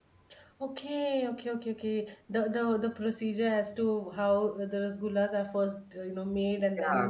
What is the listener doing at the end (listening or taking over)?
taking over